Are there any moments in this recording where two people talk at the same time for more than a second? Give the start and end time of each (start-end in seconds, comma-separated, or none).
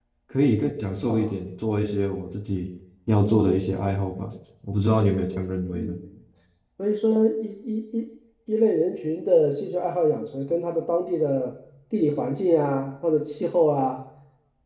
none